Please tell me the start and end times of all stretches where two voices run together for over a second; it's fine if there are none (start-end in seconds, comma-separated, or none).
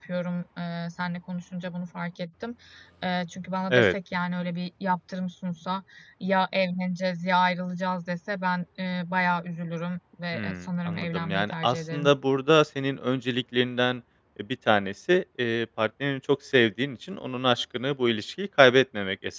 10.3-12.1